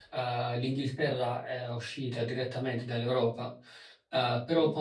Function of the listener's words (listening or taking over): listening